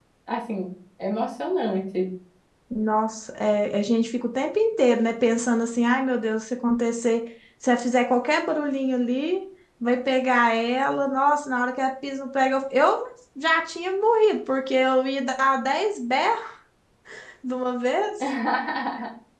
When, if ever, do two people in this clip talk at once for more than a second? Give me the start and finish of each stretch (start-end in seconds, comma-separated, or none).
none